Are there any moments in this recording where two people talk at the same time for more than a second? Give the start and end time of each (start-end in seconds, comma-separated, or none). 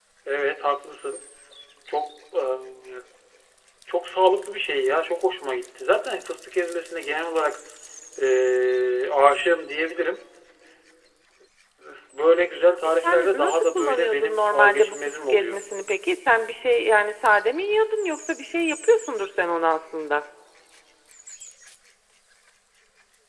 13.0-15.6